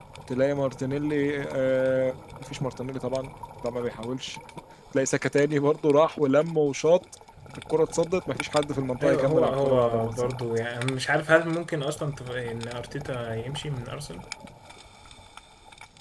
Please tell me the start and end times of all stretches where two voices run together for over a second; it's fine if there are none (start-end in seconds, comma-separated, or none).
9.0-10.4